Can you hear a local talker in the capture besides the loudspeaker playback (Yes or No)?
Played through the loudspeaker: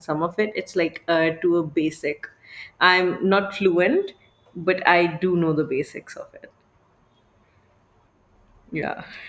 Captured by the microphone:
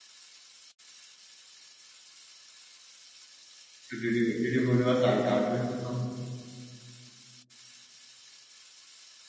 Yes